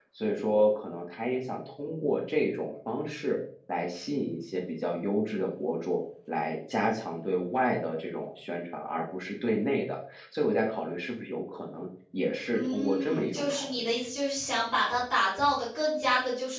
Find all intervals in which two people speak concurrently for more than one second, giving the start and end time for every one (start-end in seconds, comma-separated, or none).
12.5-13.9